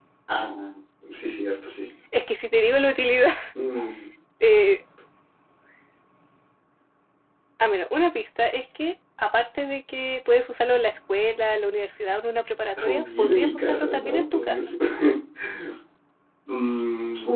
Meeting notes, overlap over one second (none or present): present